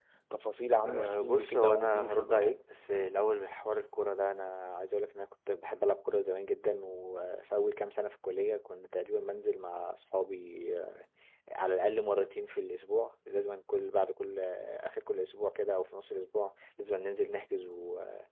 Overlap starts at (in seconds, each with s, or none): 0.9 s